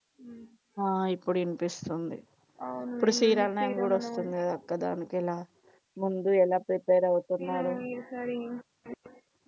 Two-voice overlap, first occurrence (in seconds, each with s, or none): 3.0 s